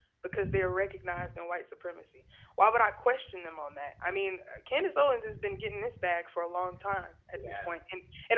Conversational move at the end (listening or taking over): listening